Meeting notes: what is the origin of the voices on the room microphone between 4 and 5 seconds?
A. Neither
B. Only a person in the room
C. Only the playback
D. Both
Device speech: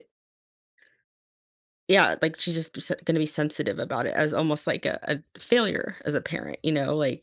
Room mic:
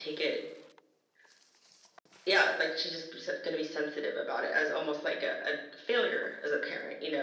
C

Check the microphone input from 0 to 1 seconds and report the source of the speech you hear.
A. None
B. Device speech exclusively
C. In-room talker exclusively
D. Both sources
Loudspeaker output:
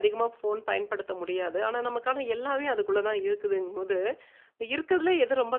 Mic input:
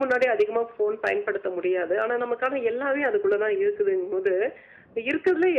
B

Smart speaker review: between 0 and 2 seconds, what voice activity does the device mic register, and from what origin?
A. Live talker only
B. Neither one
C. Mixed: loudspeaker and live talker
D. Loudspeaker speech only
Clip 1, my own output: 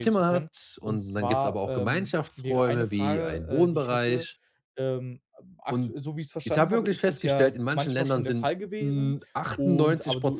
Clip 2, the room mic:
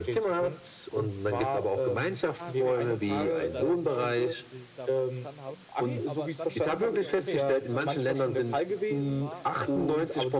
D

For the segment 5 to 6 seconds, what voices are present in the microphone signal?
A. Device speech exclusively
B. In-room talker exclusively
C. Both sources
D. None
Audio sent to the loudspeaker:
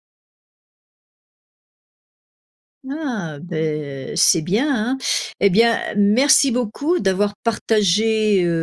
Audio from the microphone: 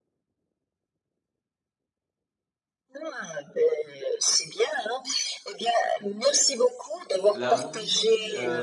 A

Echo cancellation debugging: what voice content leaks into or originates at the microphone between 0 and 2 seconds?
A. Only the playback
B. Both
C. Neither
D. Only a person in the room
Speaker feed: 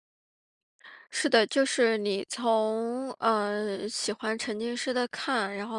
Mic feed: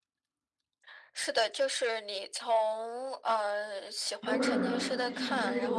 A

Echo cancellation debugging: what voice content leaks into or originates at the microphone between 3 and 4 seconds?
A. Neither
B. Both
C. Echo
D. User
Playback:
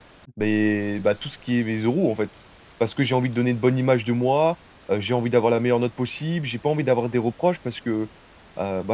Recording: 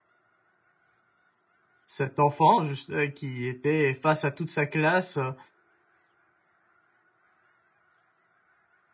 D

